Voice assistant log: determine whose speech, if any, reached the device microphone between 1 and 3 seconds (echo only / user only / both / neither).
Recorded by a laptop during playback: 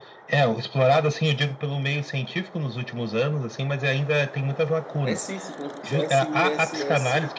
echo only